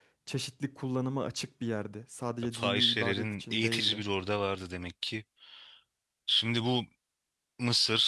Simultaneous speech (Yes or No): Yes